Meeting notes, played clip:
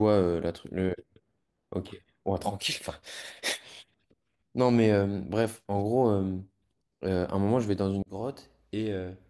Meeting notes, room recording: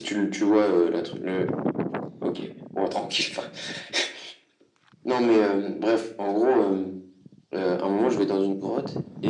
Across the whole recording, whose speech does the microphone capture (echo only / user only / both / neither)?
echo only